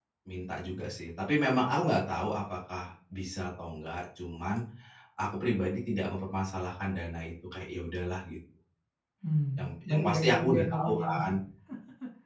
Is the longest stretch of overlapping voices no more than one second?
No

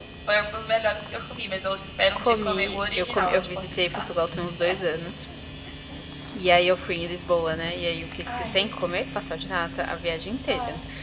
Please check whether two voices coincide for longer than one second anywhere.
Yes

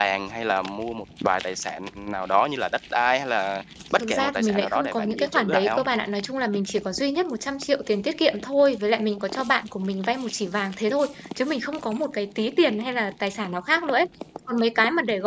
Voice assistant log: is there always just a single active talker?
No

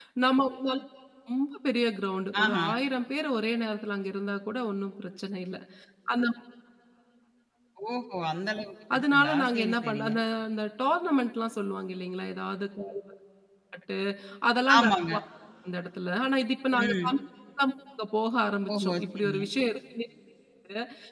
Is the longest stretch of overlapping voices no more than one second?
No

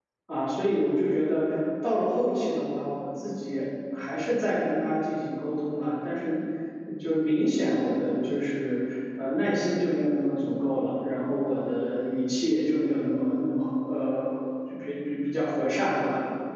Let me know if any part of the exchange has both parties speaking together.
No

